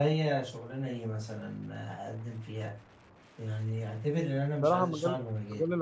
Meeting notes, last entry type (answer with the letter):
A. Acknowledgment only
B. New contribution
B